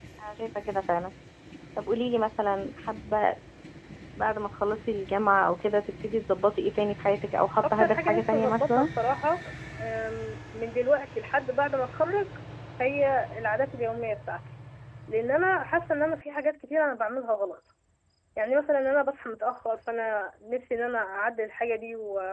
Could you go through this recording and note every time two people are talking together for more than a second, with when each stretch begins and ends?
7.6-8.9

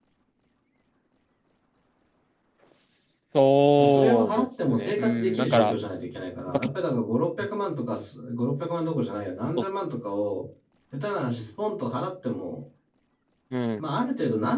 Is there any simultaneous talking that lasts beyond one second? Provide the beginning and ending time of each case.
3.8-5.7

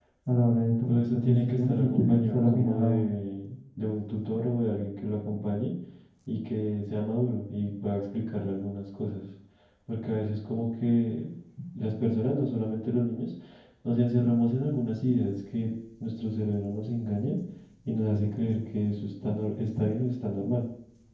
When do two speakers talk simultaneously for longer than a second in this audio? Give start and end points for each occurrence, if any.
0.9-3.1

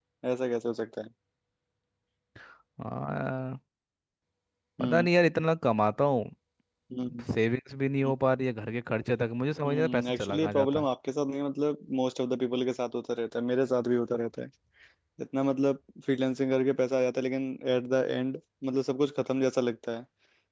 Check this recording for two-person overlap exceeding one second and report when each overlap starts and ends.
9.7-10.8

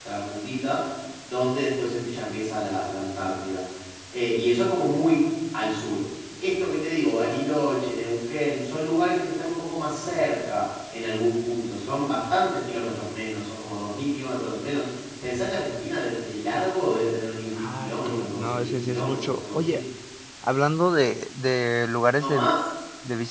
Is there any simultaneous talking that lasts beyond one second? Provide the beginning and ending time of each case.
17.6-19.8

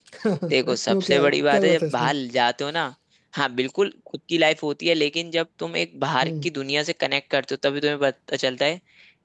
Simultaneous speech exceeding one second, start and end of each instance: 0.5-2.1

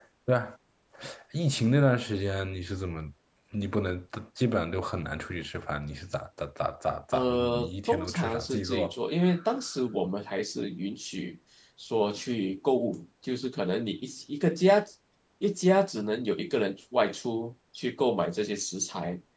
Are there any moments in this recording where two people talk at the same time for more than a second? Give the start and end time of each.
7.1-8.9

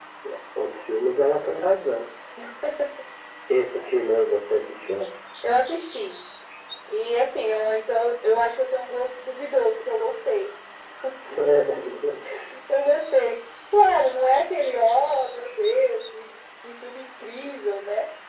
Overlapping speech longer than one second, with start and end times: none

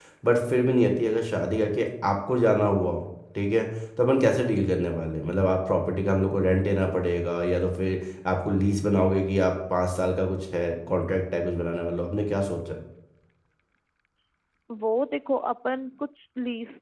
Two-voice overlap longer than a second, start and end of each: none

